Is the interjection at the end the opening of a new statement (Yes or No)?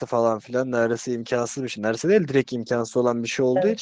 No